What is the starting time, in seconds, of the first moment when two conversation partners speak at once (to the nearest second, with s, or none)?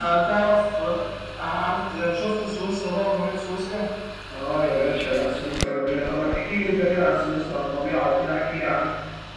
none